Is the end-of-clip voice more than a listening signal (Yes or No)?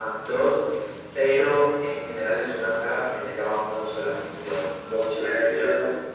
Yes